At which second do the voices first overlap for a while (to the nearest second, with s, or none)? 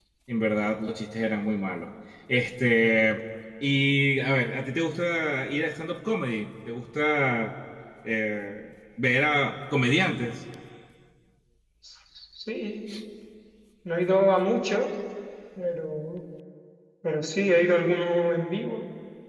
none